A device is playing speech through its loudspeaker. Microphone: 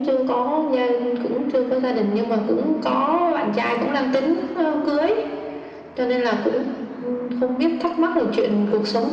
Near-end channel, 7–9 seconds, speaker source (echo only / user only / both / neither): echo only